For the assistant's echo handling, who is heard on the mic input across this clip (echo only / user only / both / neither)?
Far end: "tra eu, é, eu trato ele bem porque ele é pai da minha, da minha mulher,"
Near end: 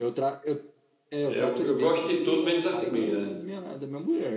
both